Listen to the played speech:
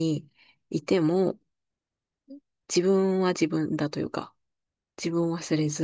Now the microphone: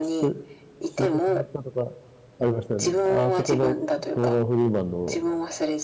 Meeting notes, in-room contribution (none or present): present